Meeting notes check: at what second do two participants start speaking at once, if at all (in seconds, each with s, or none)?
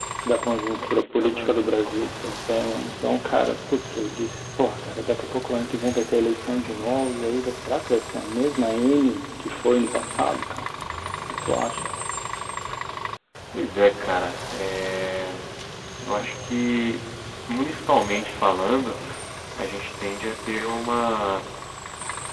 0.7 s